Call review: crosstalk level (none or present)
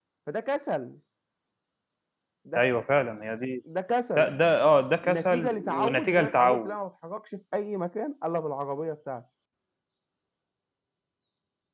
present